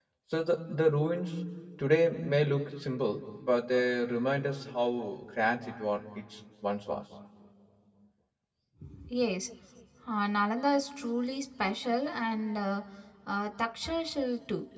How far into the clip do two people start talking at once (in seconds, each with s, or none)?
none